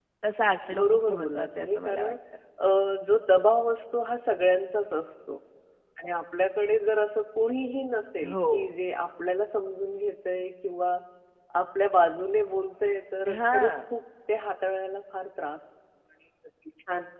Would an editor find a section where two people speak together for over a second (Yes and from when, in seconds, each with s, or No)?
Yes, from 0.8 s